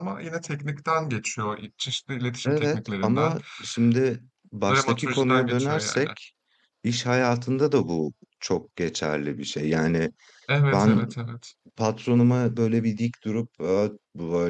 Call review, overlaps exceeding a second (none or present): present